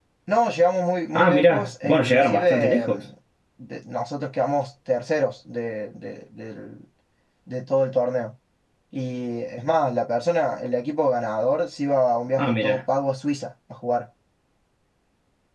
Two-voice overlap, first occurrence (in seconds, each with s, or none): 1.1 s